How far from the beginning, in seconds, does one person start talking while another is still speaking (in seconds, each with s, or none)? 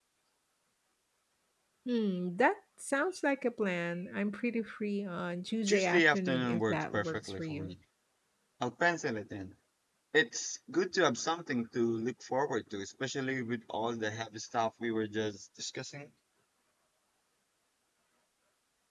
5.7 s